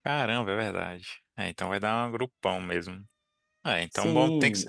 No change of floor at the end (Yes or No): No